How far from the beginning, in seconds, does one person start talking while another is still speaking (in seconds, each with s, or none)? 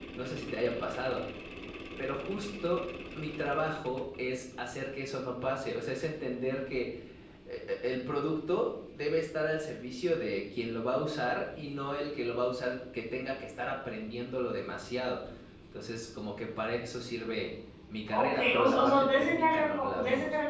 18.1 s